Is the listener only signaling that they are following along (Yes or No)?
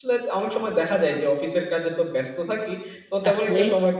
Yes